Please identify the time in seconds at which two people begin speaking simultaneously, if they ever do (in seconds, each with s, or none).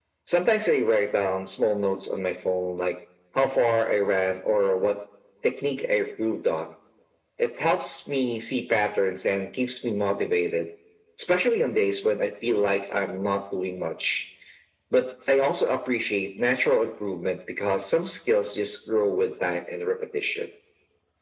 none